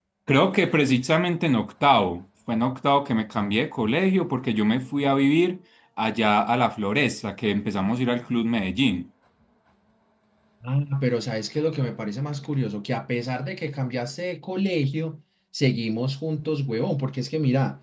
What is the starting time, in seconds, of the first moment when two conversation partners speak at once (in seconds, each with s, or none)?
none